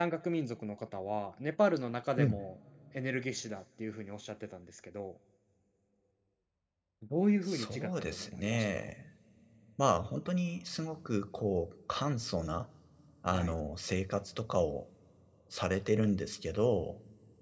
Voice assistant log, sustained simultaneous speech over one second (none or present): present